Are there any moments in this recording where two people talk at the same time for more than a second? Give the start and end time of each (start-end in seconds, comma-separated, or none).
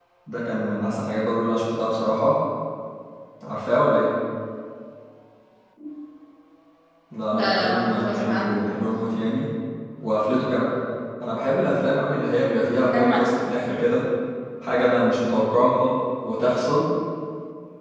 7.3-8.8